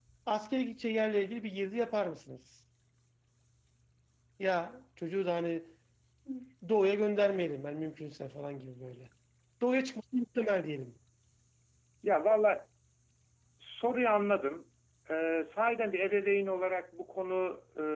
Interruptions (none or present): none